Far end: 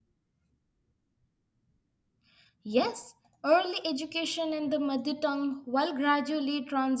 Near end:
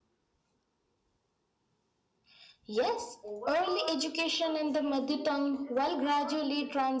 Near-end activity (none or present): present